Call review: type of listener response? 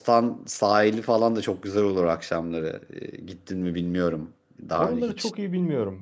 taking over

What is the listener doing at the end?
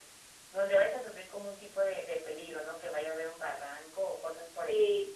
taking over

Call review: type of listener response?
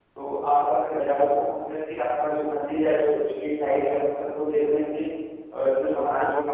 listening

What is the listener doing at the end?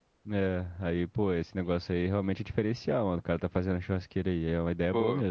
taking over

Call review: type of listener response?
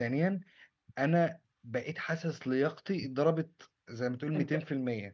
taking over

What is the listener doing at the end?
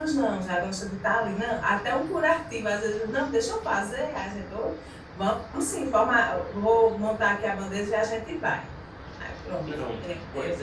taking over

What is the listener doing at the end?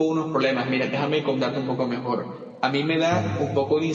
listening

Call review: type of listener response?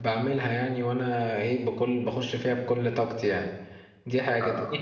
listening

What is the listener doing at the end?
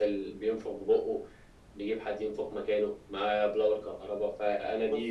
listening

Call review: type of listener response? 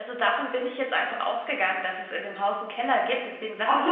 listening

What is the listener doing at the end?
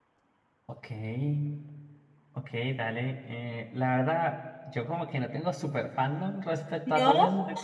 listening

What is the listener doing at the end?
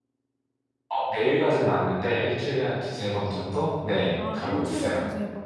taking over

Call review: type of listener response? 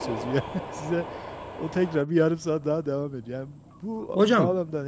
listening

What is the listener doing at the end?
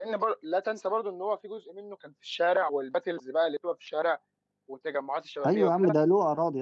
taking over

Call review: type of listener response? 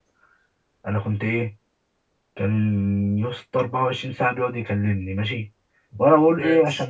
listening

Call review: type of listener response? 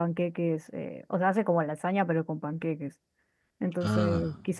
listening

